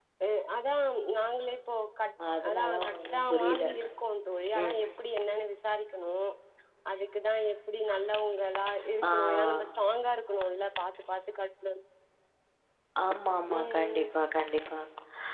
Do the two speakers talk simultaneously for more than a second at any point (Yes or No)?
Yes